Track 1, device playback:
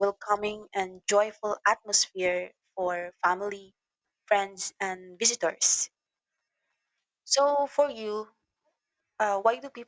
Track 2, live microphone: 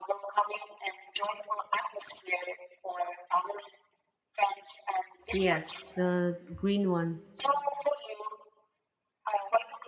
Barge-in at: 5.3 s

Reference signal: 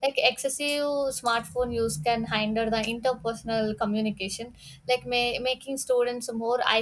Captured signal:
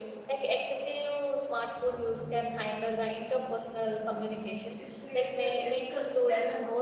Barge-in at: 4.8 s

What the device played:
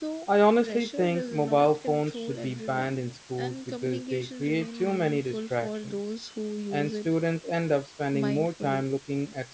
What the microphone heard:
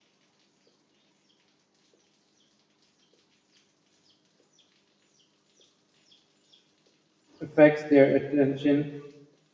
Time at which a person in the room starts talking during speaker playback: 7.4 s

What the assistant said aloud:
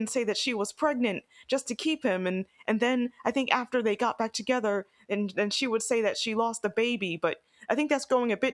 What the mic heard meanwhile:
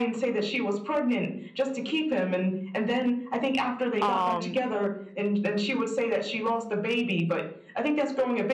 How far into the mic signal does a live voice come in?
4.0 s

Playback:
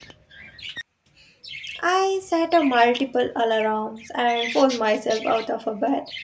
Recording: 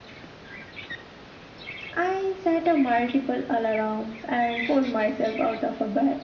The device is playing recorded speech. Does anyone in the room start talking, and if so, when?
none

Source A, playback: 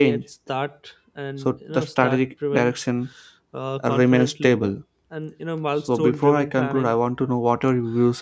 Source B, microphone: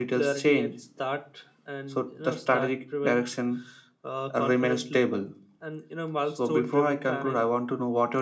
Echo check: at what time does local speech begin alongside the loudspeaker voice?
none

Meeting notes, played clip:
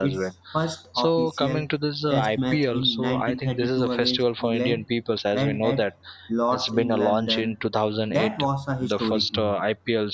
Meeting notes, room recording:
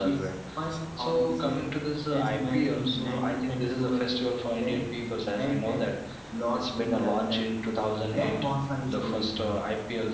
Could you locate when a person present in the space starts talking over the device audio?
none

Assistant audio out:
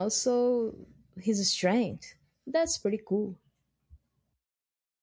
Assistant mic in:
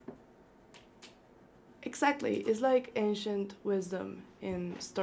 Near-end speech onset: 1.9 s

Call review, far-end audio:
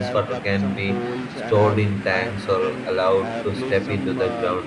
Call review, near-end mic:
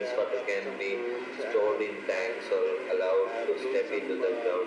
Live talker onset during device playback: none

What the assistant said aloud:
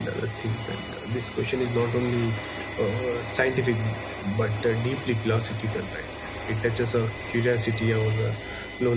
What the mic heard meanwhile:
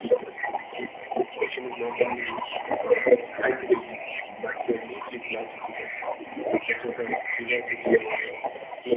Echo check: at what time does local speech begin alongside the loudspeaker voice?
none

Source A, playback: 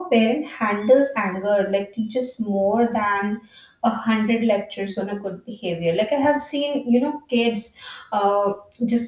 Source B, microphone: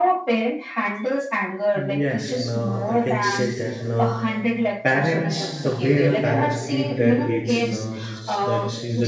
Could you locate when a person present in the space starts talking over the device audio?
1.7 s

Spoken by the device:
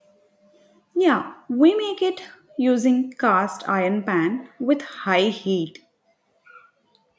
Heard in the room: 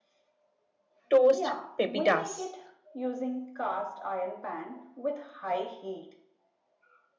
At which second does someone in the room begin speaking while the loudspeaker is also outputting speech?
1.1 s

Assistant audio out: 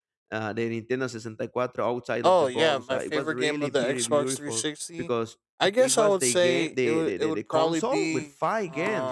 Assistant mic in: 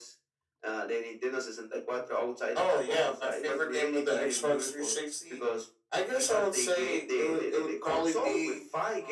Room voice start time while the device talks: none

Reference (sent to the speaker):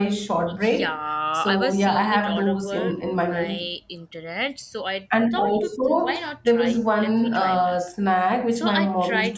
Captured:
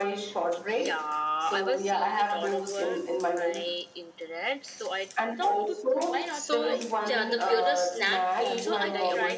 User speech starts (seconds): 6.3 s

